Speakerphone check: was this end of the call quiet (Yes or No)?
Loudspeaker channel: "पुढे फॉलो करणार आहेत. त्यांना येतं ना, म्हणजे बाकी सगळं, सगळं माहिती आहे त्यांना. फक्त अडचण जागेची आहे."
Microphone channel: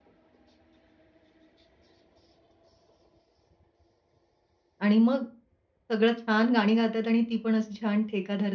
No